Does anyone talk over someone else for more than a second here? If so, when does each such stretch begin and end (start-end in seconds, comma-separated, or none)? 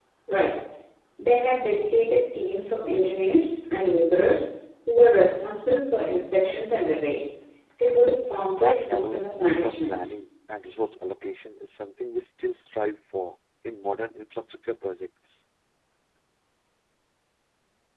8.4-10.0